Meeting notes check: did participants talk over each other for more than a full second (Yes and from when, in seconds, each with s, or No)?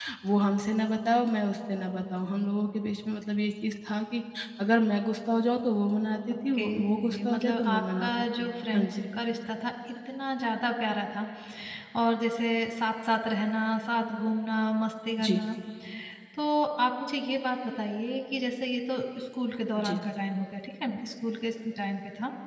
Yes, from 6.3 s